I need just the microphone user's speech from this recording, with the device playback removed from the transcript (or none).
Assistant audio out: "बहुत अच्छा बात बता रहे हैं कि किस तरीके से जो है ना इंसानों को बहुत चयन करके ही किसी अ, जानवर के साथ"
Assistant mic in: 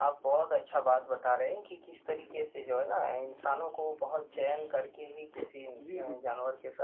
जी, जी, जी